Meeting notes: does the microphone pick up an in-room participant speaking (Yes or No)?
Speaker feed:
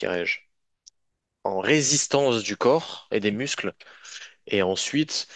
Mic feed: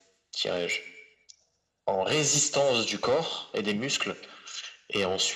No